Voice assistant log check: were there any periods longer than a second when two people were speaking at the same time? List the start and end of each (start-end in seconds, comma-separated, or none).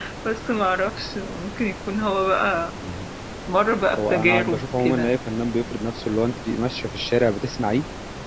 4.0-5.2